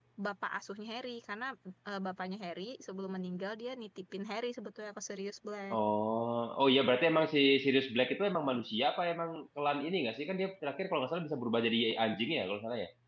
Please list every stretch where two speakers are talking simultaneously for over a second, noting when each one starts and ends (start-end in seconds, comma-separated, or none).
none